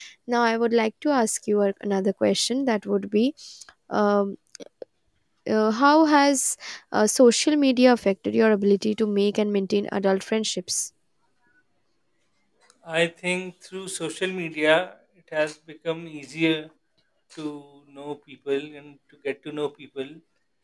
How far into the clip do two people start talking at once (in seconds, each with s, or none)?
none